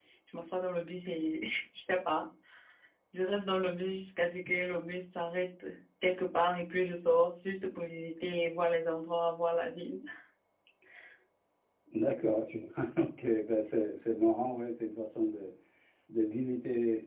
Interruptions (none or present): none